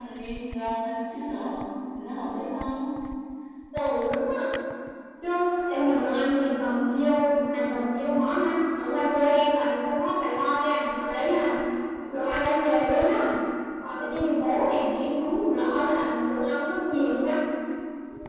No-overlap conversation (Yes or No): Yes